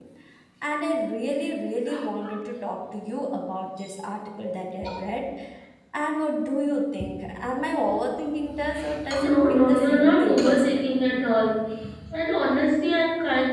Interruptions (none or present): present